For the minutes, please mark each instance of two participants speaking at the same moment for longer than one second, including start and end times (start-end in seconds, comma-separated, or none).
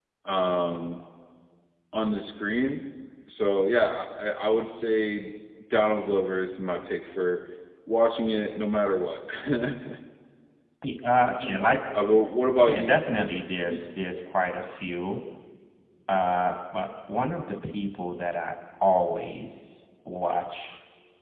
none